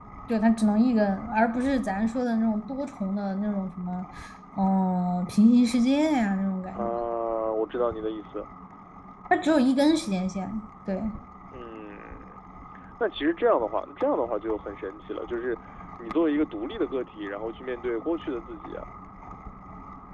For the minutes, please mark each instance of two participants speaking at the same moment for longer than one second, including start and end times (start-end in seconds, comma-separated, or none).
none